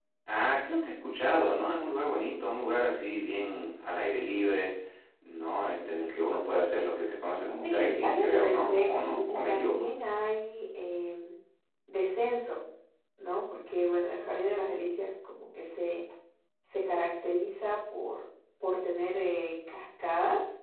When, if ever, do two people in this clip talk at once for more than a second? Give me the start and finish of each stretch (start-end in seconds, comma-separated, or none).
7.4-9.8